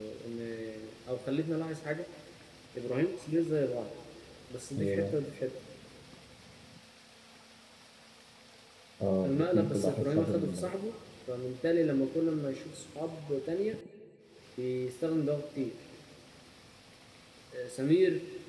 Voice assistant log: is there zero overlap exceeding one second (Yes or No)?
No